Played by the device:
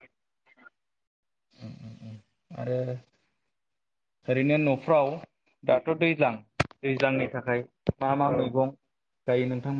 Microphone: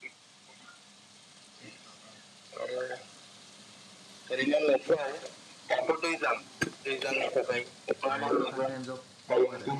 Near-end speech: present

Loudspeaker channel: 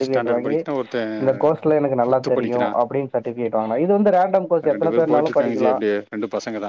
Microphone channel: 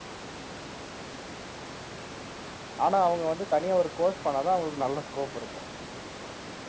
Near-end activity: present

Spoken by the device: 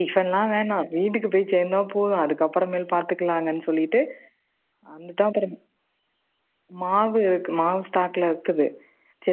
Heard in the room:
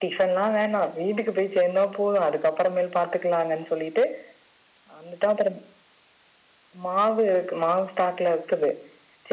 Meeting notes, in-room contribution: none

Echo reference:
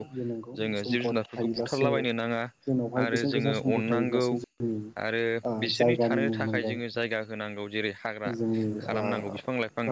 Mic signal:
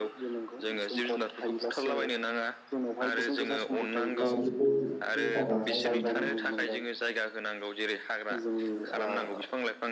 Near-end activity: present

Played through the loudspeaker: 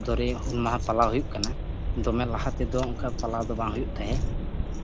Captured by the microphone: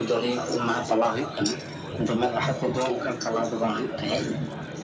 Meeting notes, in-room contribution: none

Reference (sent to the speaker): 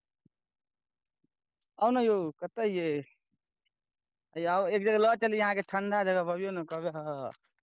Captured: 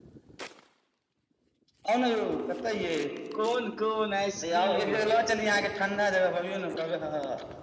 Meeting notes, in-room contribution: present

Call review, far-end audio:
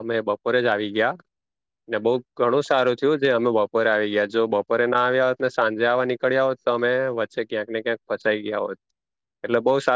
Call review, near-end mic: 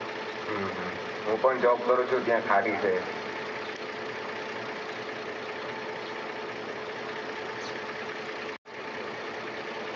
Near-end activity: present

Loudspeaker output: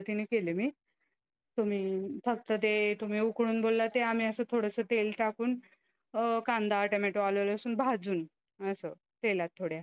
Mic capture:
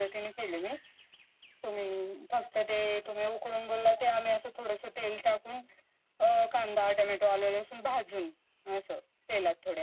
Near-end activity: none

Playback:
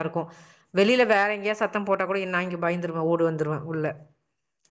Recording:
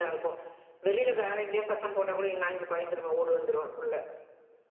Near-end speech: none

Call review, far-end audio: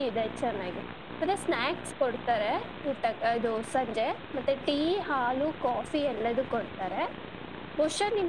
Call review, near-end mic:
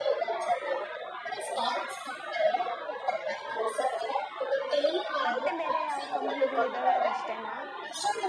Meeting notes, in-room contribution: present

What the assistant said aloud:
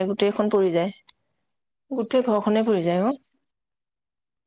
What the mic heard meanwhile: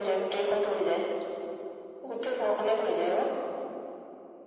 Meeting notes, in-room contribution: none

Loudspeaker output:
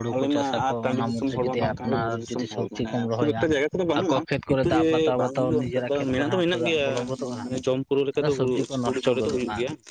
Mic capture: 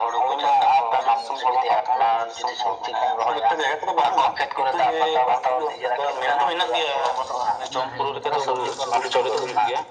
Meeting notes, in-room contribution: present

